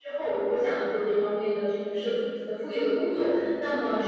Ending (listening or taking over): listening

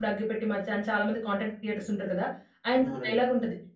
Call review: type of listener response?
listening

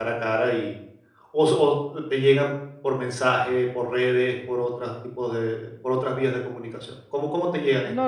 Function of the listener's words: taking over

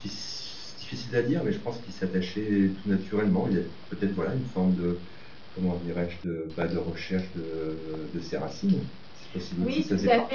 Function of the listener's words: taking over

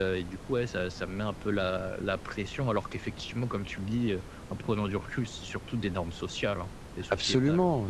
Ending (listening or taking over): taking over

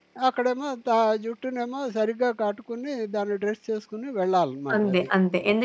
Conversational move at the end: taking over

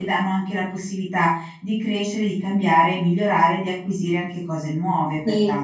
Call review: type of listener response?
taking over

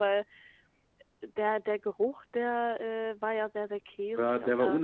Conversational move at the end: taking over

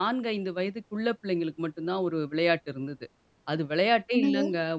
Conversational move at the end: listening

